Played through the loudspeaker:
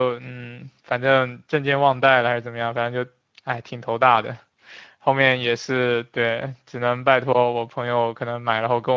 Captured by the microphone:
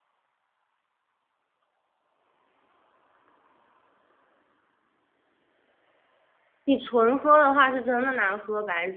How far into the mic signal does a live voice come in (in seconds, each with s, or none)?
6.6 s